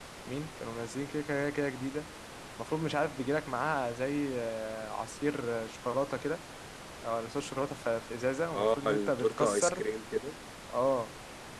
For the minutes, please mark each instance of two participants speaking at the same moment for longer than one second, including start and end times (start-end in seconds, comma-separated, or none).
8.5-9.8